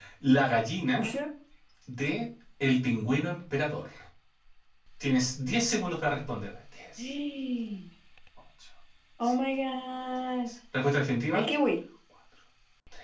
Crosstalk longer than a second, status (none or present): none